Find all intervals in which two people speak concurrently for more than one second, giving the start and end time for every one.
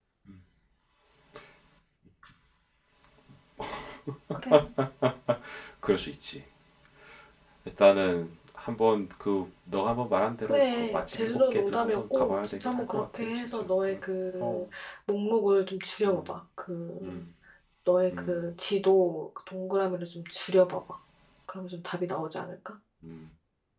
10.4-14.0

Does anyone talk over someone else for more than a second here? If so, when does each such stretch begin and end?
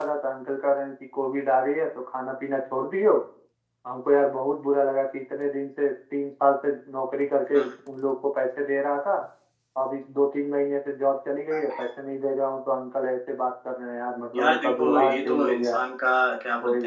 14.3-15.8

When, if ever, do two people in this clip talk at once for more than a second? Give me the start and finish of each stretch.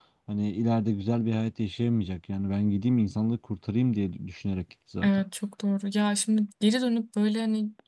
none

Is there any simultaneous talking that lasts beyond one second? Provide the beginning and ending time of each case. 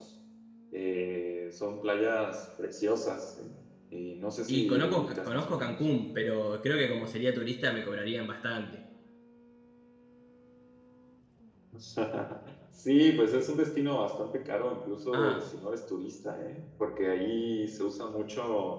4.5-5.7

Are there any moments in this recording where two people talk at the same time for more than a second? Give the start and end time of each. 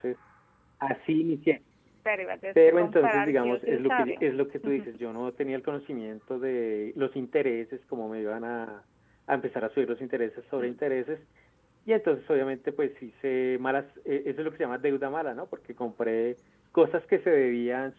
2.6-4.3

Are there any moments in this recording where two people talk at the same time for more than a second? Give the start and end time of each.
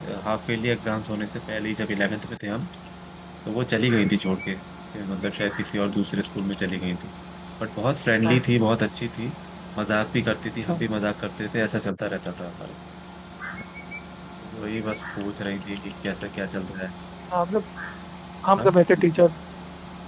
none

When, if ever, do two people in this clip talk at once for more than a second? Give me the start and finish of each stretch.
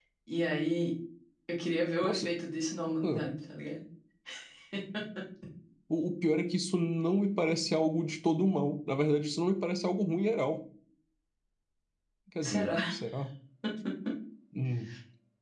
none

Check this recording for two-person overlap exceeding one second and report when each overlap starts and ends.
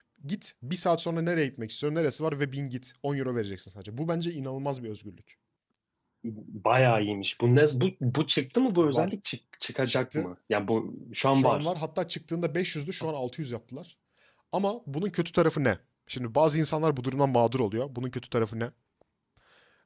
none

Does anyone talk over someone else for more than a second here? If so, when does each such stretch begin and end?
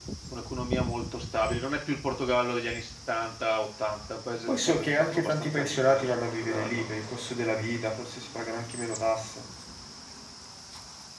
4.5-6.8

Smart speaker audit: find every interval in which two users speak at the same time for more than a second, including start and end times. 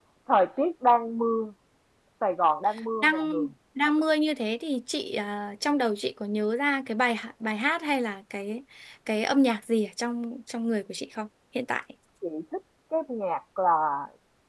none

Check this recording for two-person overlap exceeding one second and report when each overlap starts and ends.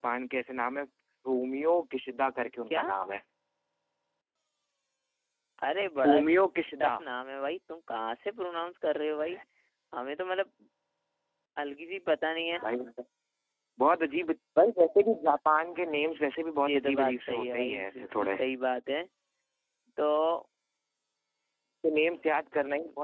16.7-18.4

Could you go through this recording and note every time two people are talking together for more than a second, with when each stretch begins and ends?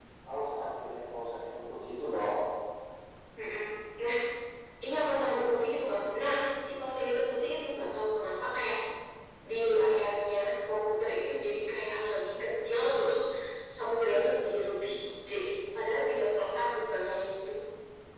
none

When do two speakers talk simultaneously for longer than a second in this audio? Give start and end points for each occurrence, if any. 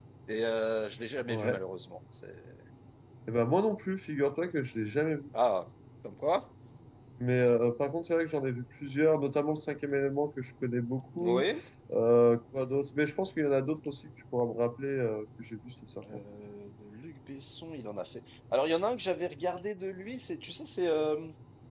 none

